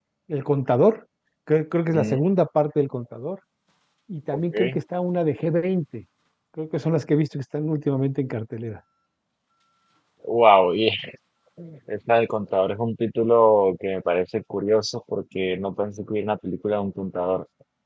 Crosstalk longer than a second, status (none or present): none